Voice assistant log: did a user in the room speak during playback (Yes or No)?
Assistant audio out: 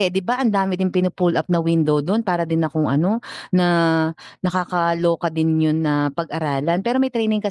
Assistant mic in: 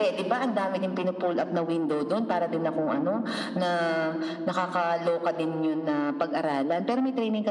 No